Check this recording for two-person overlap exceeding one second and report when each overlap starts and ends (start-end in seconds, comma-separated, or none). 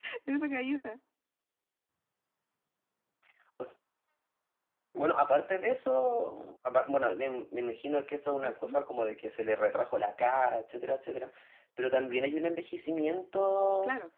none